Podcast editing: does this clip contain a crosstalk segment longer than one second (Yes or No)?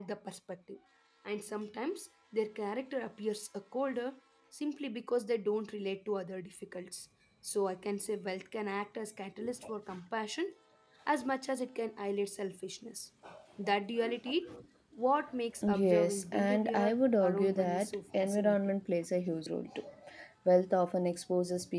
Yes